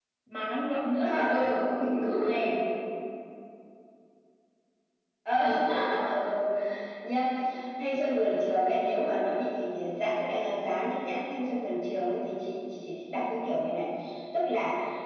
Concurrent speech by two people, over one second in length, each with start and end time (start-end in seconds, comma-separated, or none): none